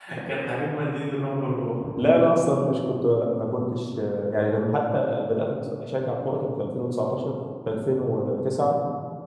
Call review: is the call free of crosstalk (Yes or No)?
Yes